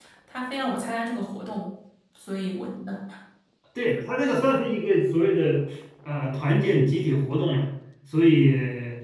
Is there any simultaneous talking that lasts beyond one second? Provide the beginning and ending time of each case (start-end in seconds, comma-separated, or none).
none